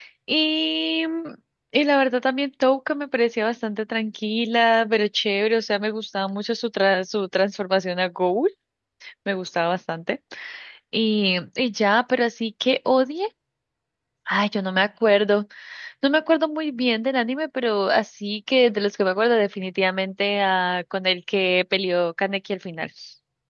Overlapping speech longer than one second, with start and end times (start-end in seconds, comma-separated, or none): none